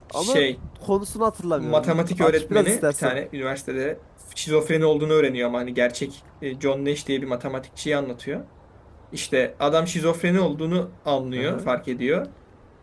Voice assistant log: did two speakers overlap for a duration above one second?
Yes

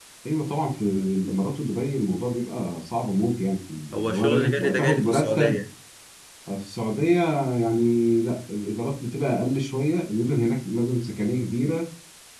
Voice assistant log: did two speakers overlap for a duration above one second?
Yes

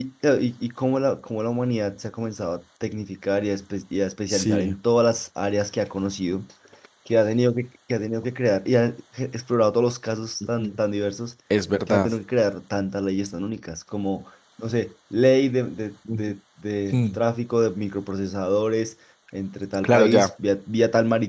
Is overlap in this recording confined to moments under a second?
Yes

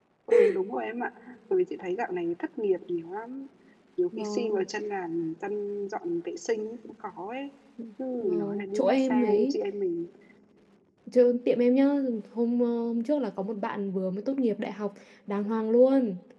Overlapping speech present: Yes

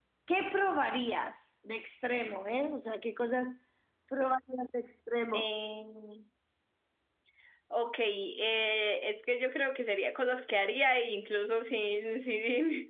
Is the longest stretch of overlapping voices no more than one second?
Yes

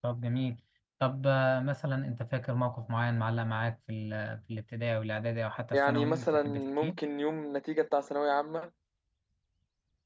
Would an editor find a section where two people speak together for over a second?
Yes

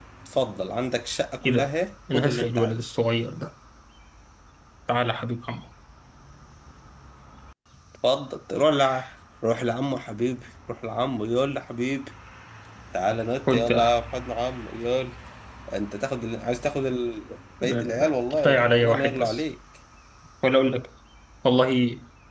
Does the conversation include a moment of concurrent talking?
Yes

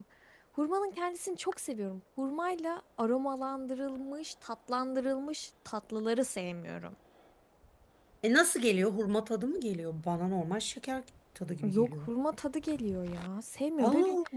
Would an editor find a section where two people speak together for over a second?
No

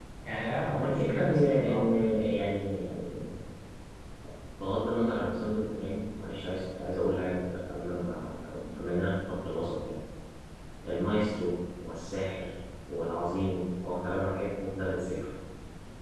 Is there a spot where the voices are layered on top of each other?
Yes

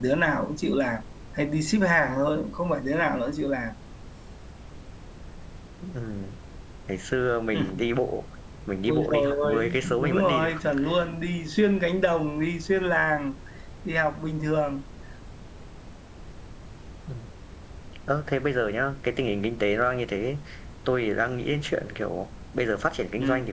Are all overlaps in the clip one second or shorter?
No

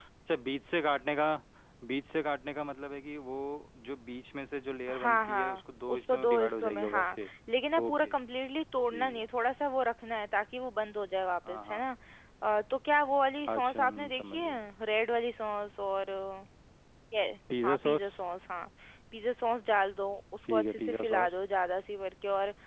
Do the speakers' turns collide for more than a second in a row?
Yes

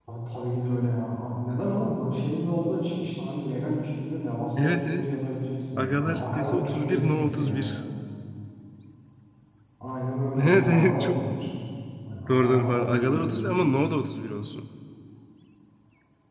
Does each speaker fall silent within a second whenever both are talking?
No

